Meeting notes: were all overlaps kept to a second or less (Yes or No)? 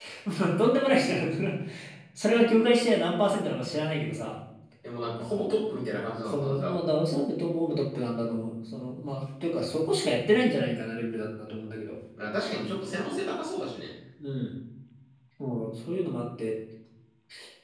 Yes